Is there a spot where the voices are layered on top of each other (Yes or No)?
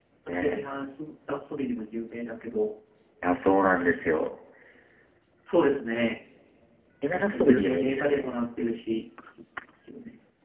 Yes